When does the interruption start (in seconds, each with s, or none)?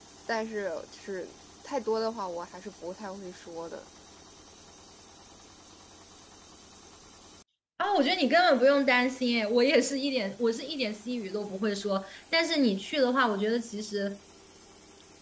none